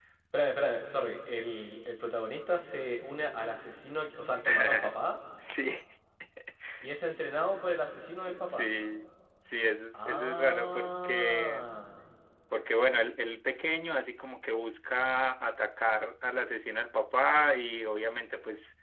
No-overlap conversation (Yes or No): No